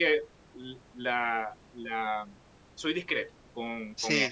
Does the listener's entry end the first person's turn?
Yes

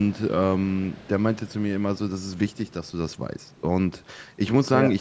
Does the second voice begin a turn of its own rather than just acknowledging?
No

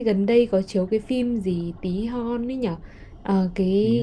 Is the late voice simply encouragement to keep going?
Yes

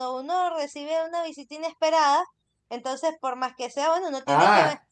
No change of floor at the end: No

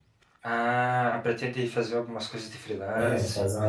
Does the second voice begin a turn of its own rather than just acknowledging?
Yes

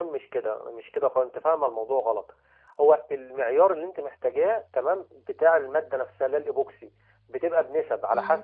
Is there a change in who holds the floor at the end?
No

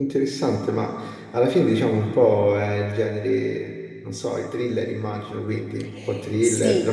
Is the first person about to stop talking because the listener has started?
Yes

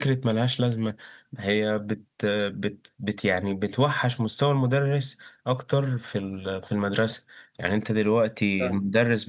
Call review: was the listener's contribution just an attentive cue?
Yes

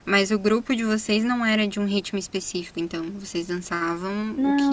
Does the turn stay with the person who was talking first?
No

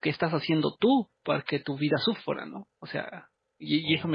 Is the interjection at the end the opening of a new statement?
No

